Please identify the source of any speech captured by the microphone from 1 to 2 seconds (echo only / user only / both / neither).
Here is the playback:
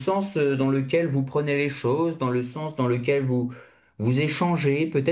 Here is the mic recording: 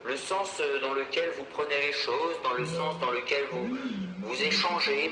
echo only